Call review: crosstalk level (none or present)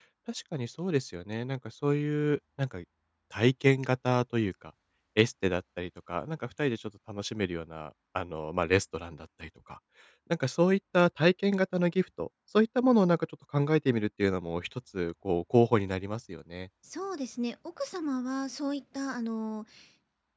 none